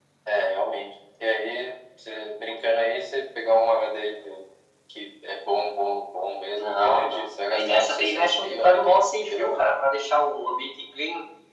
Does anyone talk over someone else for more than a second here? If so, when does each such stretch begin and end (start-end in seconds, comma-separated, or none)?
6.5-9.6